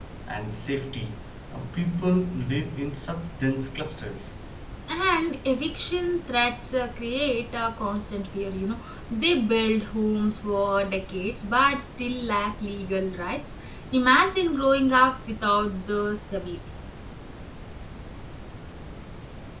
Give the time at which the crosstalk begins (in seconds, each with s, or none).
none